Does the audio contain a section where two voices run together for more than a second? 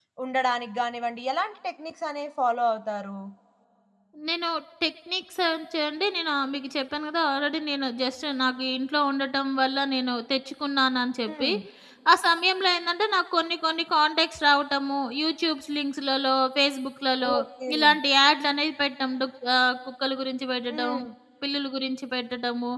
No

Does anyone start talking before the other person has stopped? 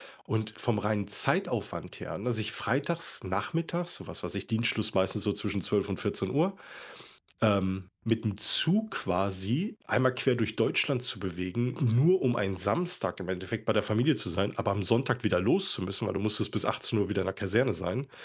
No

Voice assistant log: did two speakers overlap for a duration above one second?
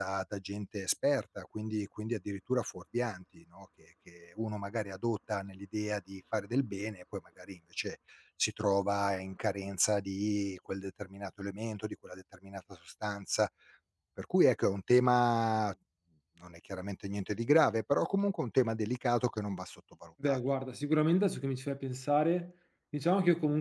No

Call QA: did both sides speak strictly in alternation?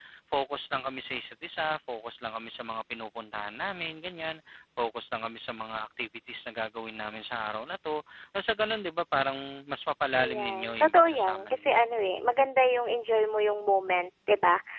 No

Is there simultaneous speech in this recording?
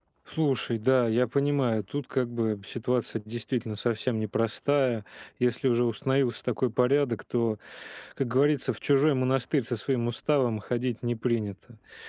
No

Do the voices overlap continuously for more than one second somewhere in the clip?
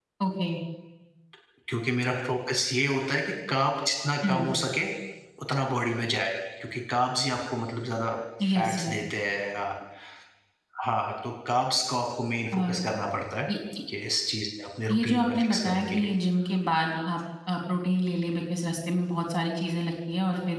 Yes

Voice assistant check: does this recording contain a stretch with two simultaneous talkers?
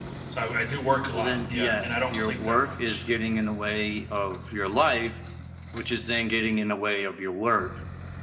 Yes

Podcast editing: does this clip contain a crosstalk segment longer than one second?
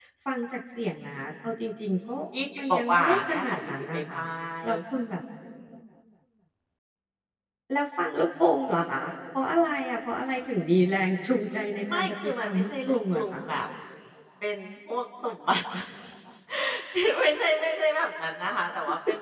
Yes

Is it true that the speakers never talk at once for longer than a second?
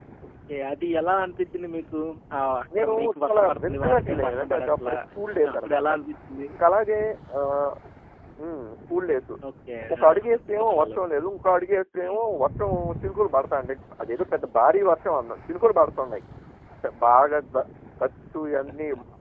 No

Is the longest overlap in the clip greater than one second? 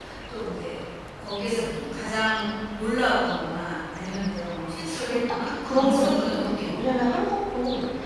Yes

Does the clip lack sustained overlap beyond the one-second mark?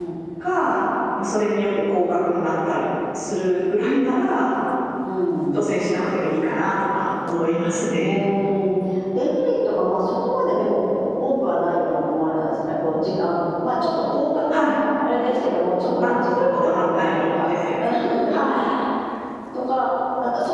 No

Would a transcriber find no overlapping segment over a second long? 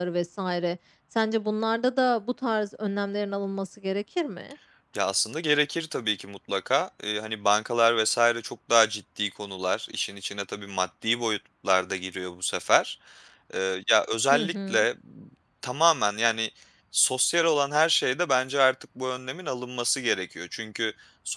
Yes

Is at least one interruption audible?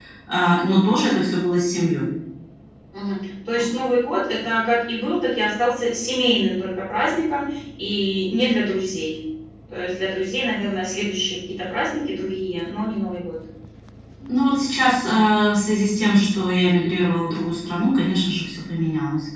No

